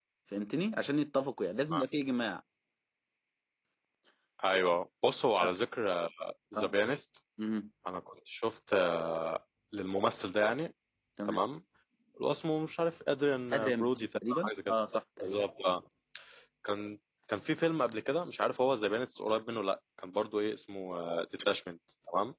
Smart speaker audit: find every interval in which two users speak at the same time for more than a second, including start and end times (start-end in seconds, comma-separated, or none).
13.5-14.8